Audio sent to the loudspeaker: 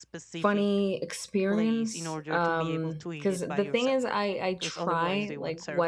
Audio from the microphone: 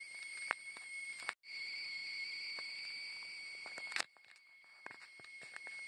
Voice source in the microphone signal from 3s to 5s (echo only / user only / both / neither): neither